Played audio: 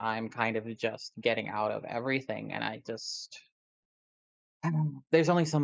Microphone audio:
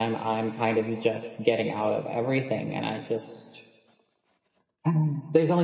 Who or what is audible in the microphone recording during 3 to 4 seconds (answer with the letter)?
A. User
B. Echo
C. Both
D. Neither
B